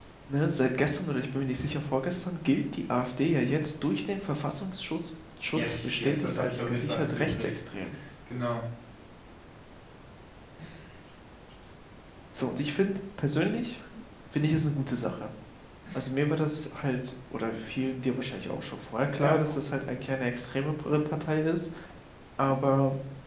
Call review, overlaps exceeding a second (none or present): present